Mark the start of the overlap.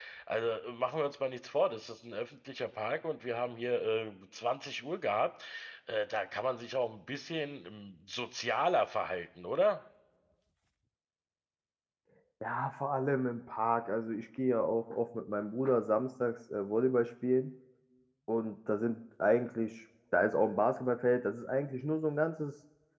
none

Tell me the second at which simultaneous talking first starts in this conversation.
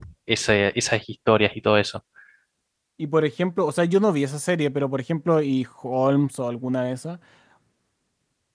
none

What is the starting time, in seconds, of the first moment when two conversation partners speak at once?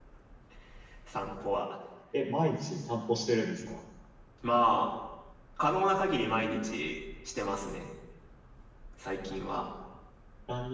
none

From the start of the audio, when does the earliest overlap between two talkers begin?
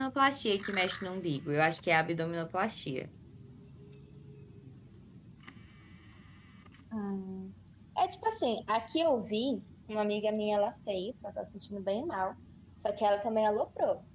none

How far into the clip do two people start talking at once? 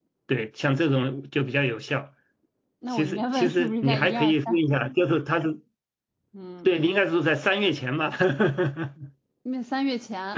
3 s

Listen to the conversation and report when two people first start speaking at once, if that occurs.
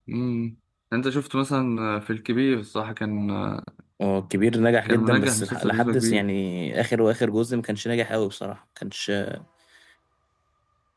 5 s

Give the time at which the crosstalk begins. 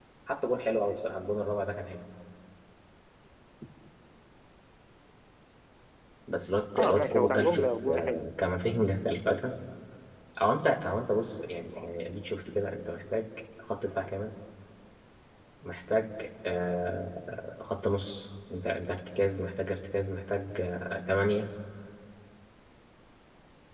7 s

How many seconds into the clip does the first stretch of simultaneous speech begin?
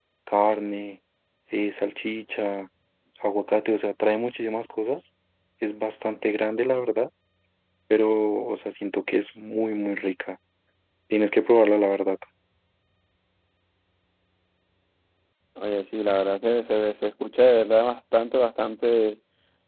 none

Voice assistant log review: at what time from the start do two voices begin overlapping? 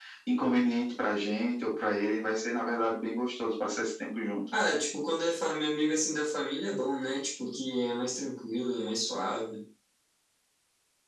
none

